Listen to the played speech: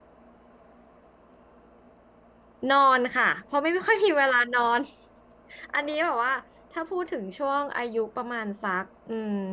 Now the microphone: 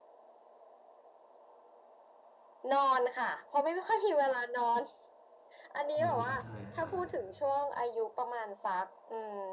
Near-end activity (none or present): present